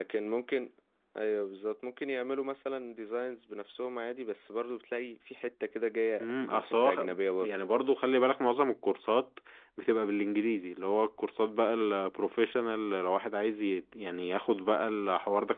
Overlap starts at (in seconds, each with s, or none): 6.2 s